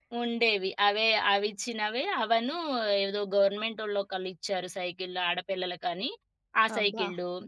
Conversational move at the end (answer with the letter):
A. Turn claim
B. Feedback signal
A